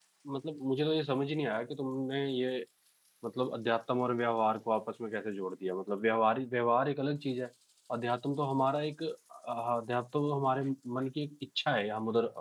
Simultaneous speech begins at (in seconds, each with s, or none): none